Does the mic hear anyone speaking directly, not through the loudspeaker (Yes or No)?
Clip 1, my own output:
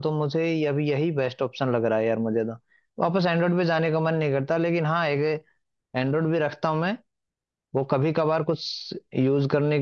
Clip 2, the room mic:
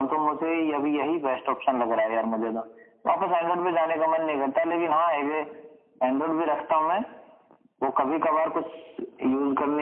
No